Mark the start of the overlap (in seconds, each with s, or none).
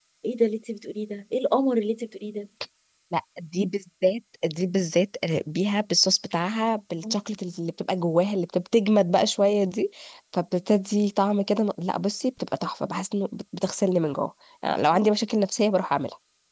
none